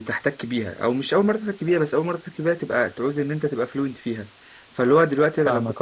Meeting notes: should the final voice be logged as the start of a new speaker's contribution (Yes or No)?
No